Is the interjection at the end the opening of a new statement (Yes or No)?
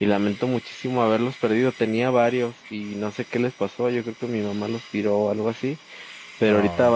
No